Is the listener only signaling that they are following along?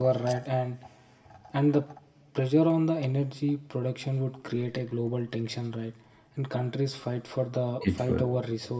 Yes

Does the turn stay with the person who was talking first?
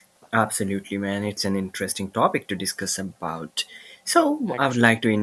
Yes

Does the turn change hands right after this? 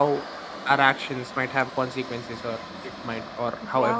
Yes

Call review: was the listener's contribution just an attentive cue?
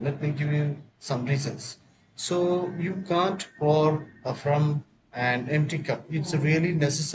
Yes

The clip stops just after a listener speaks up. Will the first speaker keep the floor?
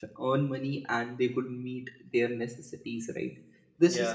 Yes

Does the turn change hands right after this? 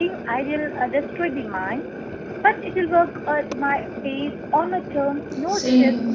Yes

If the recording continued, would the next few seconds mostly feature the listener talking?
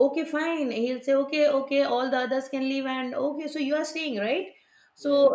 No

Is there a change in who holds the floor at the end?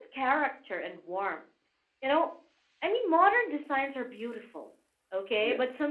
No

